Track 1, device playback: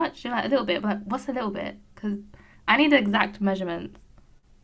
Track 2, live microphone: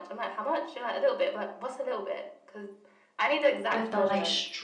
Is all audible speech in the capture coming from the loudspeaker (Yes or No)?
No